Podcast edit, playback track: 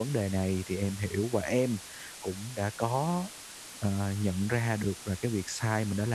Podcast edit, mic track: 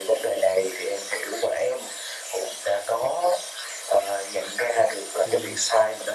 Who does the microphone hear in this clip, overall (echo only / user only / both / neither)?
both